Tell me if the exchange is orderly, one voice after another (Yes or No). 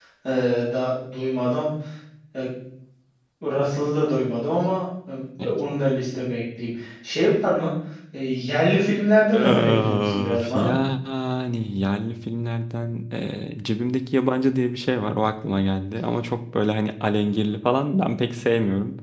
No